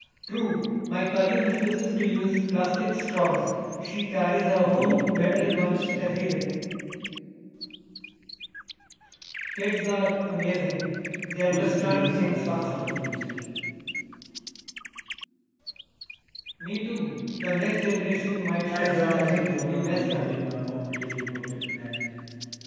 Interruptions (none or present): present